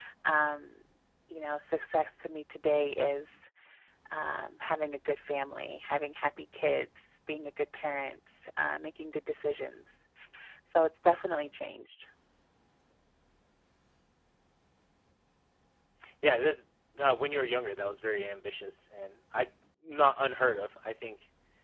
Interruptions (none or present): none